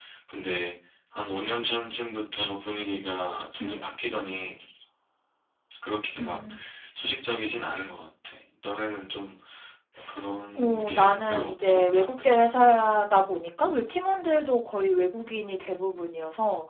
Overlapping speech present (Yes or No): Yes